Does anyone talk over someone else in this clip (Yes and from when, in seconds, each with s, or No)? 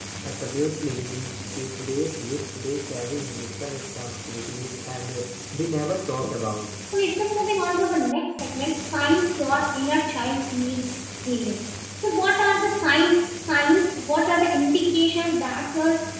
No